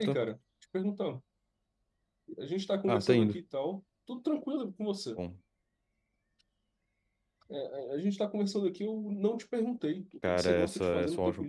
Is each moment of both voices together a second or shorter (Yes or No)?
No